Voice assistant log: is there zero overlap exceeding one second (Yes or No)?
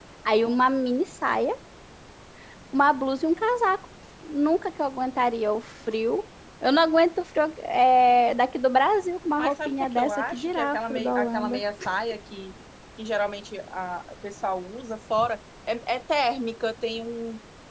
No